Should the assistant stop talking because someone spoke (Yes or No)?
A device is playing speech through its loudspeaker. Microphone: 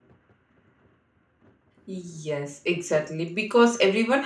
Yes